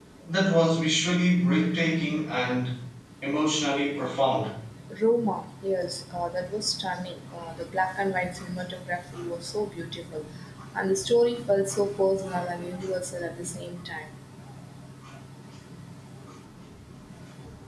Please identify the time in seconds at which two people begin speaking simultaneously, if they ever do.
none

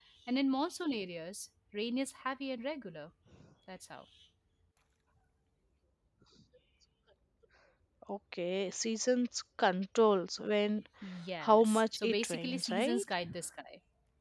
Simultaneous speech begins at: 11.4 s

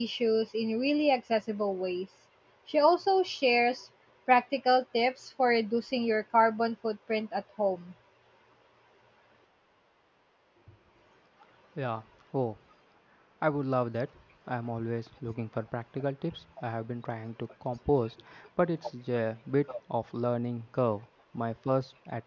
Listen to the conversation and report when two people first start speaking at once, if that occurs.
none

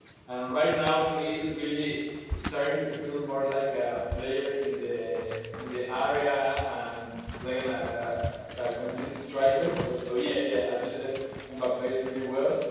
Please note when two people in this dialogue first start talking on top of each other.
none

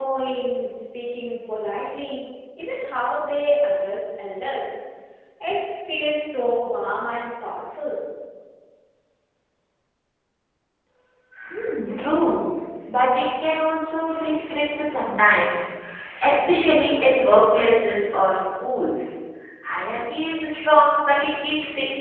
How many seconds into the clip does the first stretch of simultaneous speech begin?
none

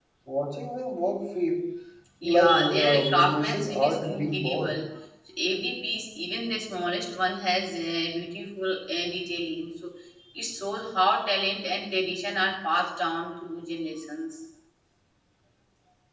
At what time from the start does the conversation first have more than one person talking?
2.2 s

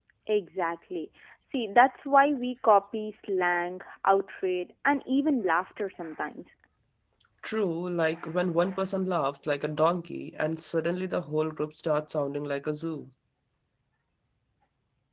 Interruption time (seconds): none

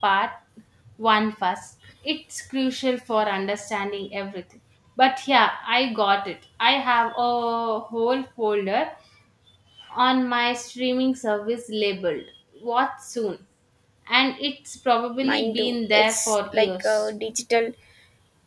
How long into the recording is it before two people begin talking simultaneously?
15.2 s

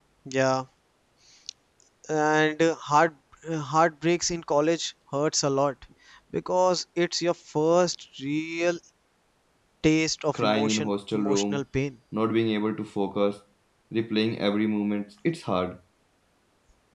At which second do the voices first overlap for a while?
10.4 s

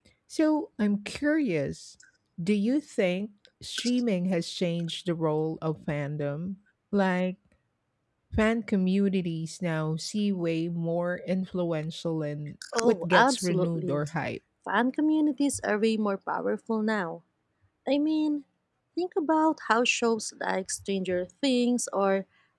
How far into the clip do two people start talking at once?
12.6 s

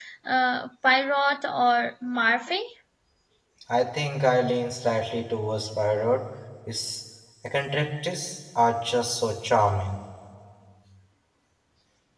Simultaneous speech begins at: none

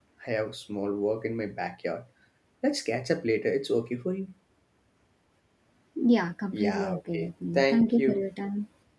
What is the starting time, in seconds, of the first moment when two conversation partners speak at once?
6.5 s

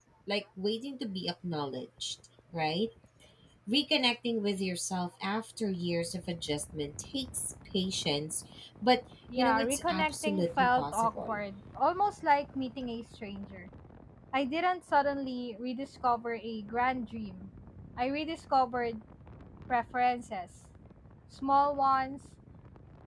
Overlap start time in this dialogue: 9.4 s

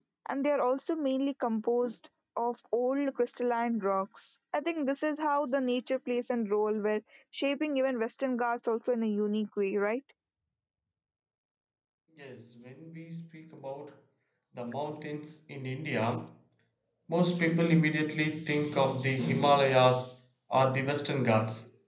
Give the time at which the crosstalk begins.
none

